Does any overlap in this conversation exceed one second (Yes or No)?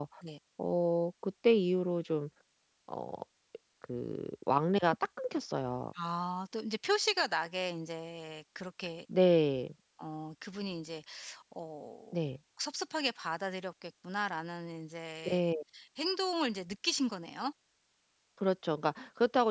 No